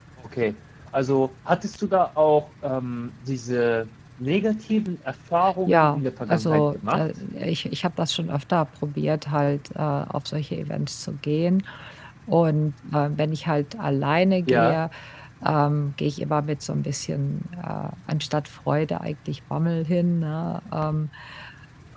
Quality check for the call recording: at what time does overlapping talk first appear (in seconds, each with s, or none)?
5.7 s